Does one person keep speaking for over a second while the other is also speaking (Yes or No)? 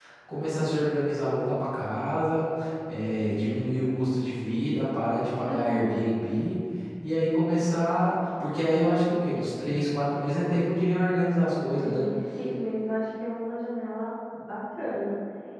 No